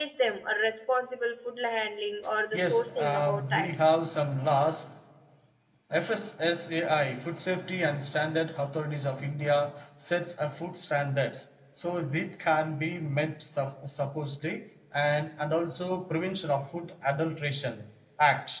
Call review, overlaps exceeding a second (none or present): present